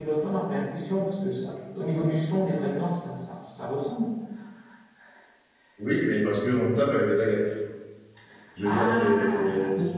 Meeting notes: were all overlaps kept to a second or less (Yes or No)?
No